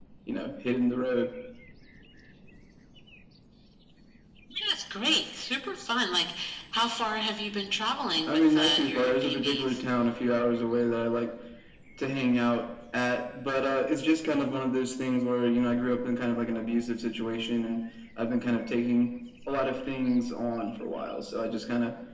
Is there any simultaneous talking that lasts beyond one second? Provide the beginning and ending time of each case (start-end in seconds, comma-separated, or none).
8.3-9.8